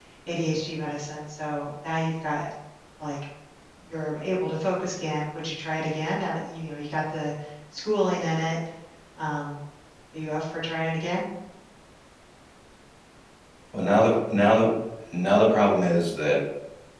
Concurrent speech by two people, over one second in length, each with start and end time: none

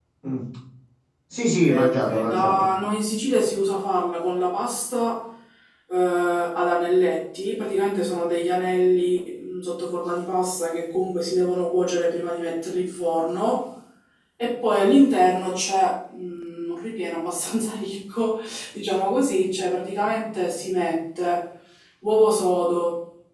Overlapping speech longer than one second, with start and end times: 1.4-2.7

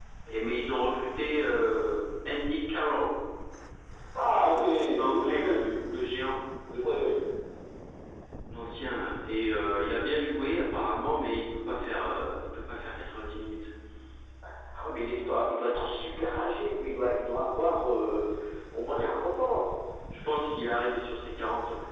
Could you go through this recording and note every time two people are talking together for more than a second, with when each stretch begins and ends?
4.2-5.6

